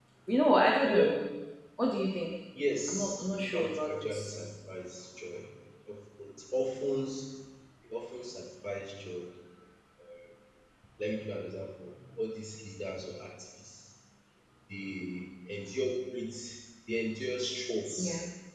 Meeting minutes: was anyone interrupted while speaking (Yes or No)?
Yes